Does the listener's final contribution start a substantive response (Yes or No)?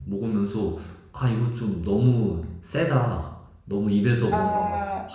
No